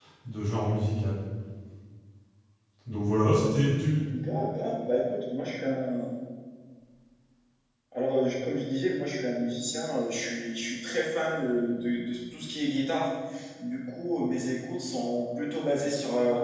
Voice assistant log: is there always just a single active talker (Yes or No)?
Yes